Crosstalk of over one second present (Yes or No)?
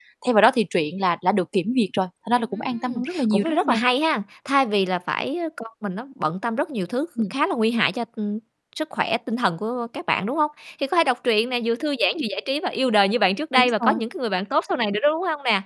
Yes